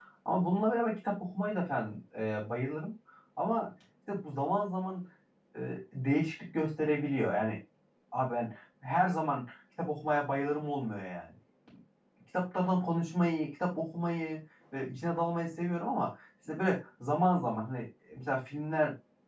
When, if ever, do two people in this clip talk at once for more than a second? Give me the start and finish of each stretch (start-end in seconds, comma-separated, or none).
none